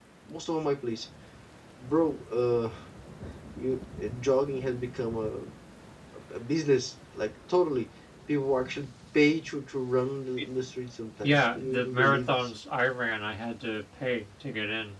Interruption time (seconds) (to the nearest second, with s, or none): 11 s